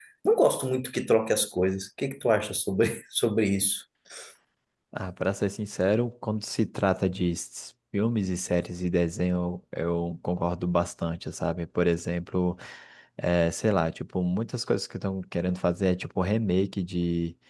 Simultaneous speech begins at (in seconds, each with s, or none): none